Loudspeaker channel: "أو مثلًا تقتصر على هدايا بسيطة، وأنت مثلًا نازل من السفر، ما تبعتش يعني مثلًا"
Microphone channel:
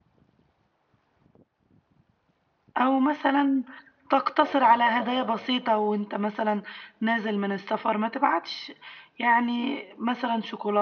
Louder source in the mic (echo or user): echo